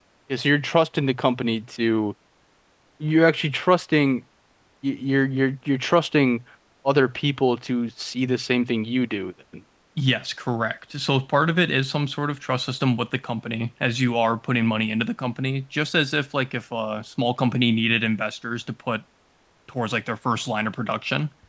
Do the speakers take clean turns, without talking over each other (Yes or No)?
Yes